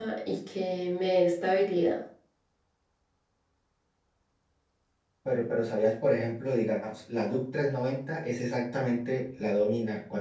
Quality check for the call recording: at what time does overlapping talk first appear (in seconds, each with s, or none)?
none